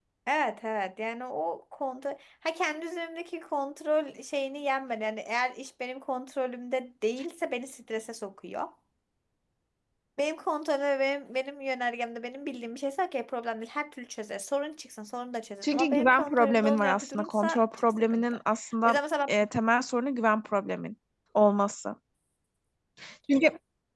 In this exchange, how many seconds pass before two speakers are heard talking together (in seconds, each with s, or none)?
15.6 s